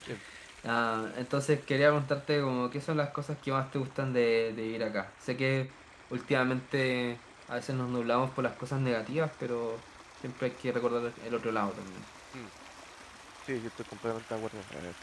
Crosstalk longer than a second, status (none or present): none